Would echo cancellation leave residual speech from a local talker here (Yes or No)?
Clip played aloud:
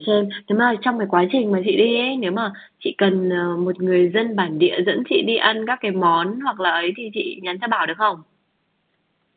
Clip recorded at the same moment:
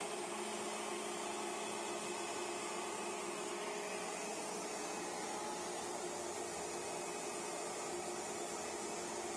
No